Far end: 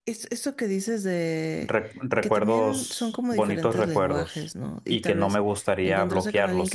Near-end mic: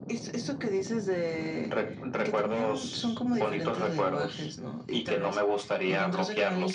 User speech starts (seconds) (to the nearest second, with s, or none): none